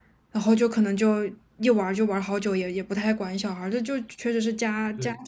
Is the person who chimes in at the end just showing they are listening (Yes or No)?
No